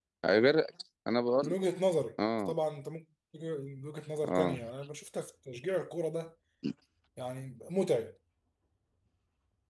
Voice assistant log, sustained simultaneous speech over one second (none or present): none